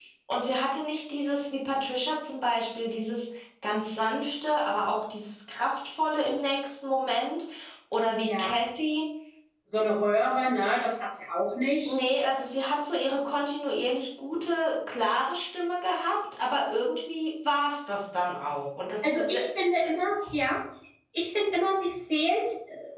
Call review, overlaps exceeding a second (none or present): none